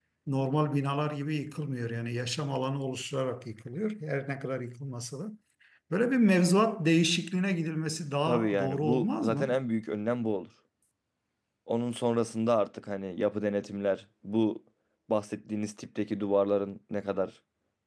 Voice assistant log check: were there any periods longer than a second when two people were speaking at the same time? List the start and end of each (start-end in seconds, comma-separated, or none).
8.2-9.6